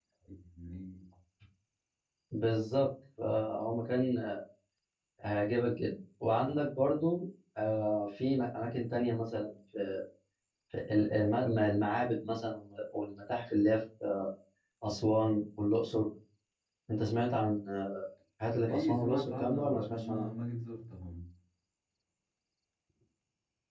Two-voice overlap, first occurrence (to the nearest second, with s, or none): 19 s